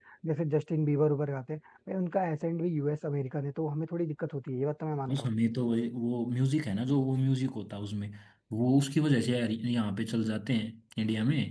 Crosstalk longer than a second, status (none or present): none